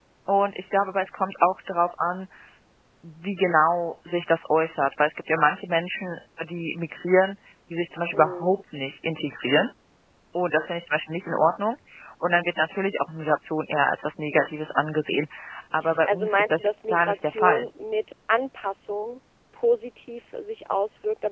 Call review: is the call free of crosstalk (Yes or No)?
No